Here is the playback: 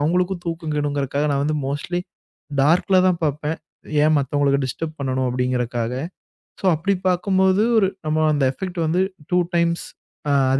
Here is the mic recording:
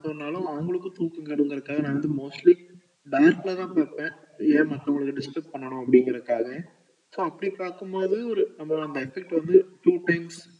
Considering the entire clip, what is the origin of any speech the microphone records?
echo only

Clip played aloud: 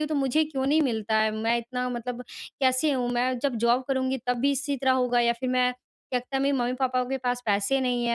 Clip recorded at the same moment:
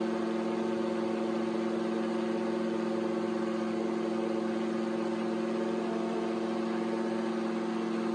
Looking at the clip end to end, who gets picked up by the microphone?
neither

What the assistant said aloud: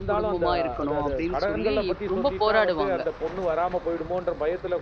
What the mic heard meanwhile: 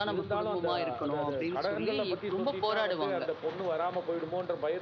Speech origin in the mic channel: echo only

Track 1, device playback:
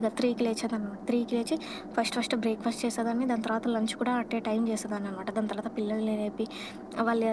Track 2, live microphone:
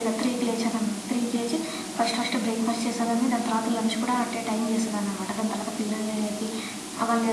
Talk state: echo only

